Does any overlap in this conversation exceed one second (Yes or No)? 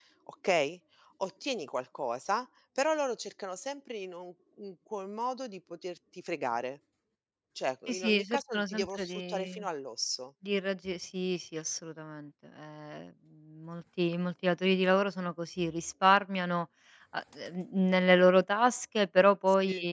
Yes